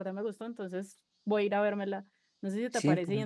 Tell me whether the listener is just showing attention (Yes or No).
Yes